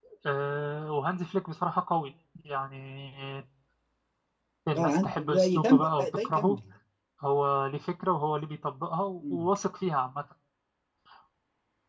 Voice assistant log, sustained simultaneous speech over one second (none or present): present